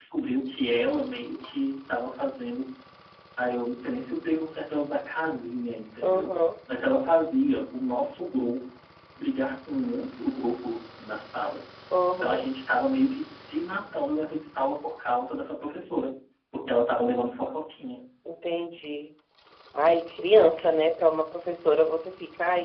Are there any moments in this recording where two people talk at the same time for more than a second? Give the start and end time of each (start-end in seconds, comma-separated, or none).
none